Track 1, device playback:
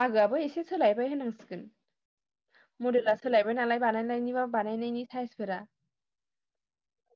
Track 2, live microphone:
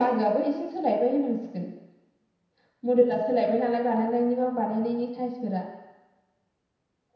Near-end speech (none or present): none